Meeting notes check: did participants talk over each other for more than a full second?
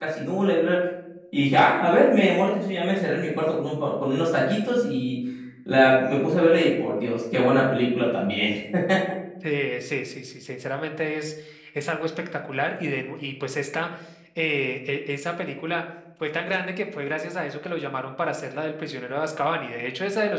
No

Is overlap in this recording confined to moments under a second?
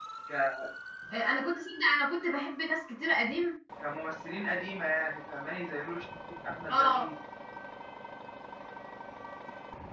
Yes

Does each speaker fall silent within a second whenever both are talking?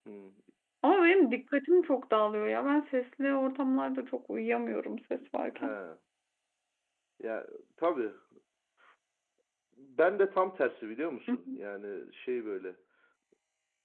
Yes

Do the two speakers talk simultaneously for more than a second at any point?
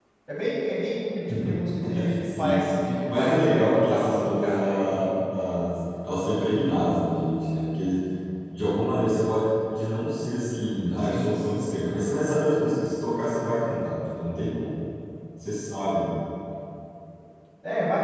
Yes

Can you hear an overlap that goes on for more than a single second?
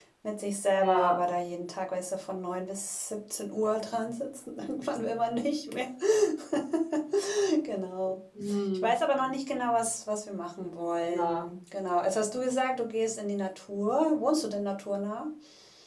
No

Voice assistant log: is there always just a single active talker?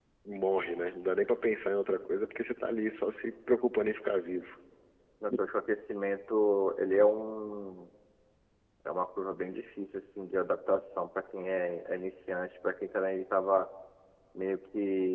Yes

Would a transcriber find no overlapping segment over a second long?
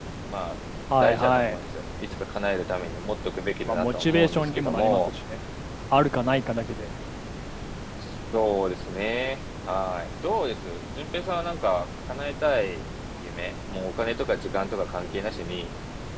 No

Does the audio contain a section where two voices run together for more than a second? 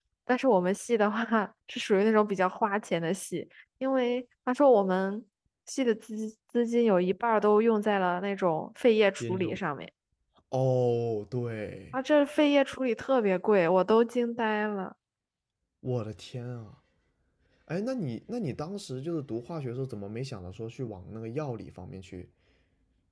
No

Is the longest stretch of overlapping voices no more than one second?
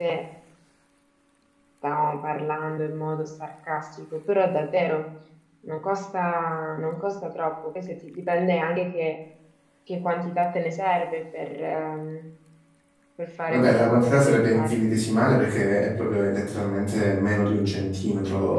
No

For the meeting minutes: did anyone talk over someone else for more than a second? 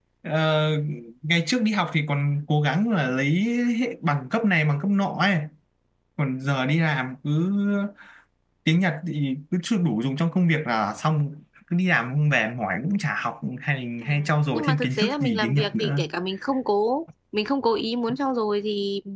Yes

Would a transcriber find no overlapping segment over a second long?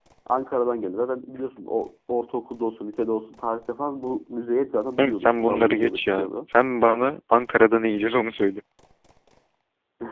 No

